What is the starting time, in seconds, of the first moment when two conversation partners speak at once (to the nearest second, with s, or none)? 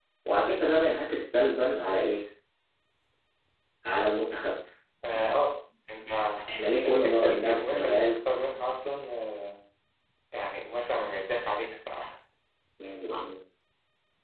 7 s